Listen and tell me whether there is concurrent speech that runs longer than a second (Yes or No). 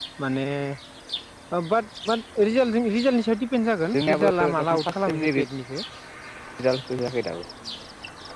Yes